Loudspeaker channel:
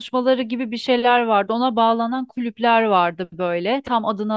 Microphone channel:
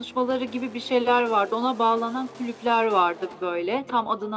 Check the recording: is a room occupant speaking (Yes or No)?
No